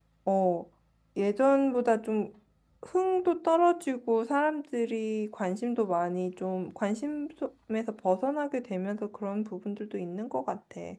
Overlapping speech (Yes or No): No